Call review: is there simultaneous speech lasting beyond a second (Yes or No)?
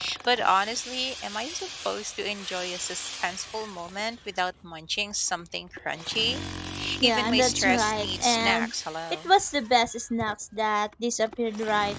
Yes